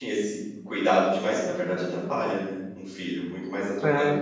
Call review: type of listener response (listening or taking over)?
taking over